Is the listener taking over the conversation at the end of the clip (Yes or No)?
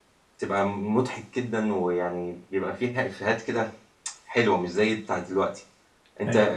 No